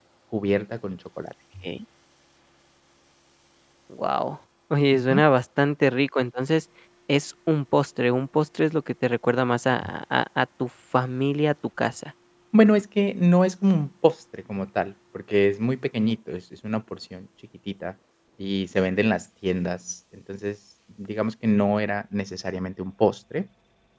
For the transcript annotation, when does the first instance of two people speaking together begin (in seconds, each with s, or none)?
none